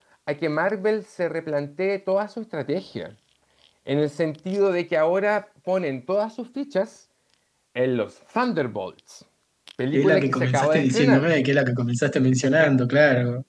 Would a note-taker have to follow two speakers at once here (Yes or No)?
Yes